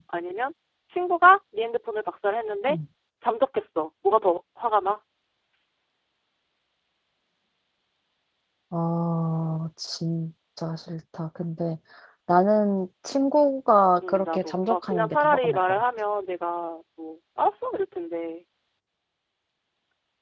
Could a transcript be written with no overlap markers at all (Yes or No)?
No